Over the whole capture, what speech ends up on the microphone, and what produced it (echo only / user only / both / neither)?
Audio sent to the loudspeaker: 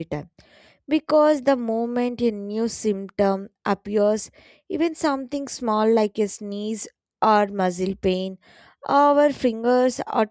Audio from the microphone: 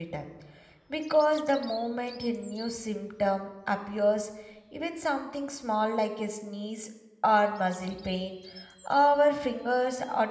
echo only